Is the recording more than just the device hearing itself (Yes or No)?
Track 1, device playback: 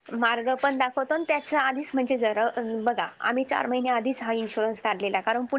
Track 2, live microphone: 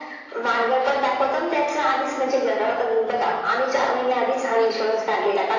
No